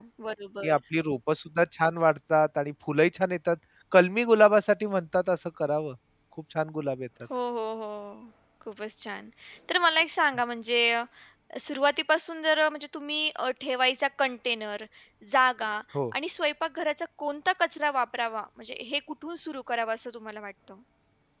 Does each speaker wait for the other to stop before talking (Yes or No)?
Yes